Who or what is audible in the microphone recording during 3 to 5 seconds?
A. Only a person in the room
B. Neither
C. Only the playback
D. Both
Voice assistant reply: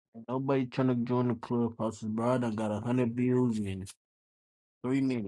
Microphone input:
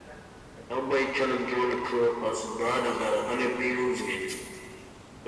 C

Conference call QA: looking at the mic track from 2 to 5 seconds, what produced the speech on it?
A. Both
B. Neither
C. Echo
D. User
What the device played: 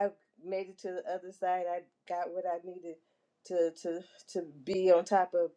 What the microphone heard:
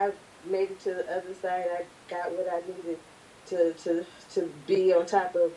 C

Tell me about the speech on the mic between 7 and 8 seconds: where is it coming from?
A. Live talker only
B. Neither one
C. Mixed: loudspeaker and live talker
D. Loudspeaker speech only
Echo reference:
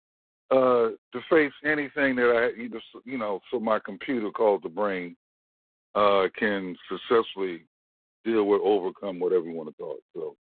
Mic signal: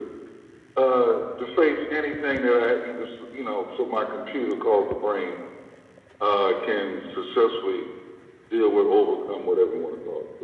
D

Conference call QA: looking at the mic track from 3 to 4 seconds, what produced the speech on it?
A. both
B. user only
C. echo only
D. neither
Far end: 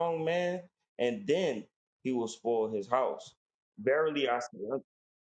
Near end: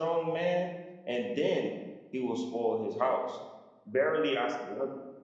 C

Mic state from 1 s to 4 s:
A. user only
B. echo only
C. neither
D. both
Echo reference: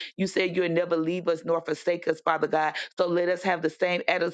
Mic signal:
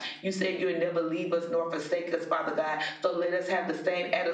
B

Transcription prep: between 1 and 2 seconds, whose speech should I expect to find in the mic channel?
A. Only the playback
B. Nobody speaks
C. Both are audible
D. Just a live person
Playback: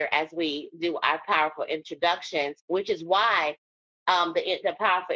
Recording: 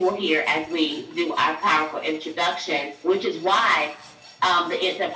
A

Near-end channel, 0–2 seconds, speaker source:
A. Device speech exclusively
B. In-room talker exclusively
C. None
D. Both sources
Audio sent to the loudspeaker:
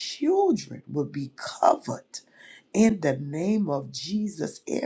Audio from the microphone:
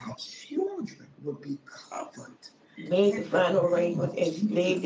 A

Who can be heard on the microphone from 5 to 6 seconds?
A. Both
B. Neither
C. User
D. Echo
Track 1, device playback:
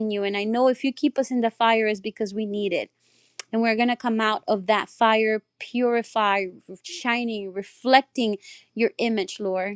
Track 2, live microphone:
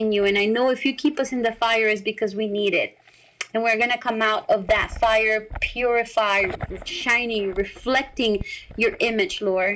D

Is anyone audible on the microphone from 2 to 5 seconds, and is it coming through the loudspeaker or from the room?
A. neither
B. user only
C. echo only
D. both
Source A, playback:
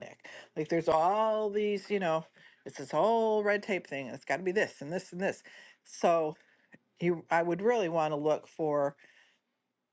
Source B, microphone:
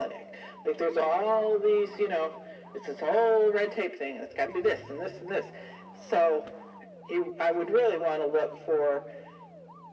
C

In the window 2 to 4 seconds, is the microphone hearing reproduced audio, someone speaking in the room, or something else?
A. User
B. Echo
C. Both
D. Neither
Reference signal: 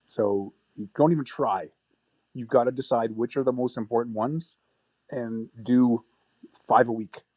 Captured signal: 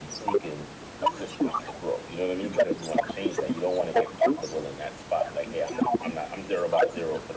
C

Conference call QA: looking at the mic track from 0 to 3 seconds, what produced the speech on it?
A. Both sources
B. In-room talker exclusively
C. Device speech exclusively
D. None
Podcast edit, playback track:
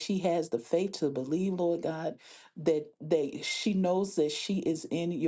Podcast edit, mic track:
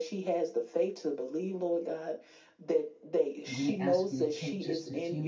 C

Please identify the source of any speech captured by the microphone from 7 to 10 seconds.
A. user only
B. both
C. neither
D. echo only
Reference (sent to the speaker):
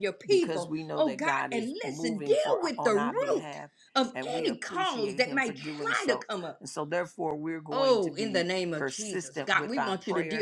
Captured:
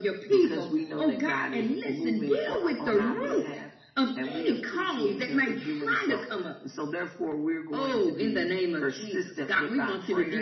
D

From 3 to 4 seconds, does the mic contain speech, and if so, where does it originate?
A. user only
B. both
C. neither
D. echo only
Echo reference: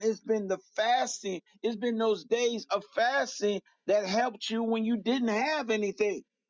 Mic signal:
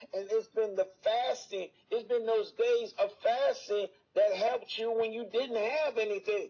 D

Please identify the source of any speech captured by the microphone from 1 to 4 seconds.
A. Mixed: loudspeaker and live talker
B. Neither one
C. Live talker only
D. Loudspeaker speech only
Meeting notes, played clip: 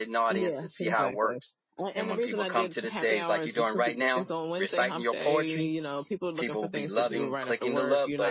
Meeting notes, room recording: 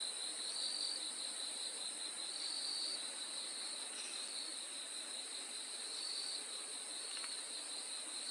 B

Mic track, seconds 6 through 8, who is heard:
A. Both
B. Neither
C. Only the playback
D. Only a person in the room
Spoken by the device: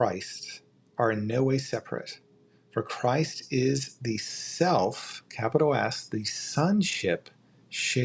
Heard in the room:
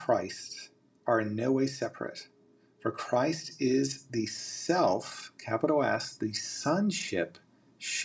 C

